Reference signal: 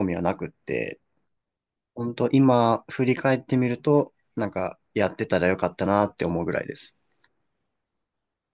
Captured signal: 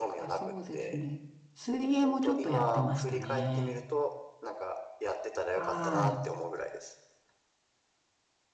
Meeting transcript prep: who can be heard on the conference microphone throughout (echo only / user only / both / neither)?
both